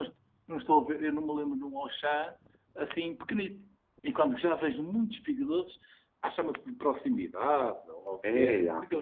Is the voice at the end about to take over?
Yes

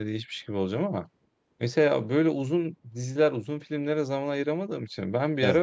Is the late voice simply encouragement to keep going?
Yes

